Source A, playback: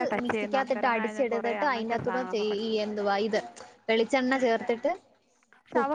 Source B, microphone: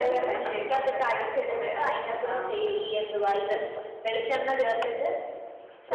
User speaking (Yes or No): No